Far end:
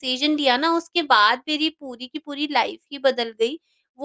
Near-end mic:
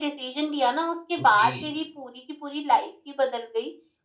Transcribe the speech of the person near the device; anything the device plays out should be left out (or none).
ओके।